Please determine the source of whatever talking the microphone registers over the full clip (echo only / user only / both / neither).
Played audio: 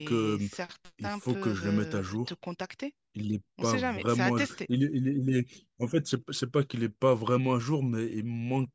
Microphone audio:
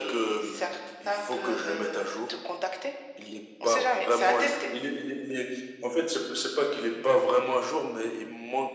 echo only